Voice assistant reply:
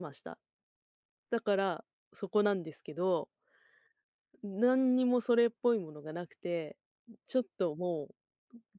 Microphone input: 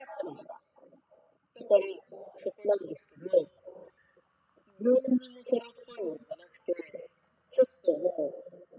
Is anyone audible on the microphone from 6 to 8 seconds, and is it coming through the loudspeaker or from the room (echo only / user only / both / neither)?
echo only